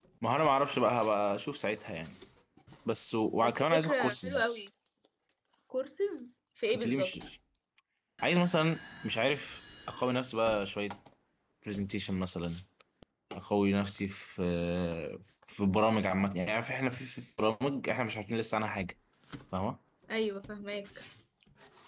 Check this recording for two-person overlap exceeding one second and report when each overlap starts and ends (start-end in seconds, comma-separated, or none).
3.4-4.6